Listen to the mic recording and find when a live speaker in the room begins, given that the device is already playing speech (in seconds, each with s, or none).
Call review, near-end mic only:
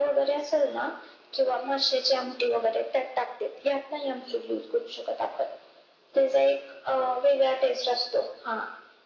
none